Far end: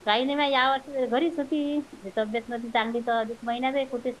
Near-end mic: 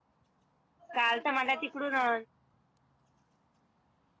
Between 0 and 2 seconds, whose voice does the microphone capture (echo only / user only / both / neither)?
user only